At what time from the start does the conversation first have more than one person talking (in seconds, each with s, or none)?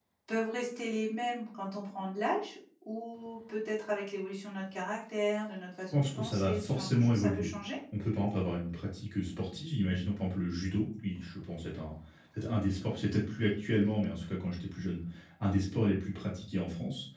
5.9 s